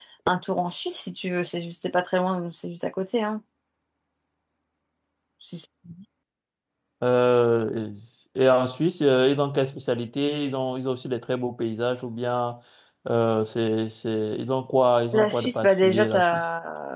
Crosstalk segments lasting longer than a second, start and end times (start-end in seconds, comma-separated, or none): 15.1-16.4